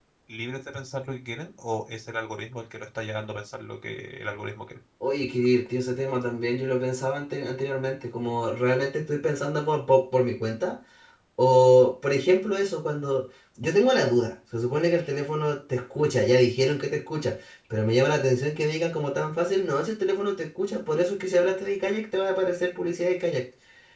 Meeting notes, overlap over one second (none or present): none